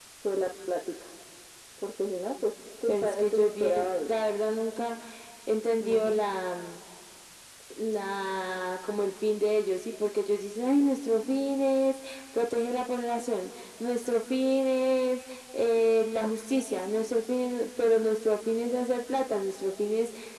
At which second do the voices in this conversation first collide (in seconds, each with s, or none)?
2.9 s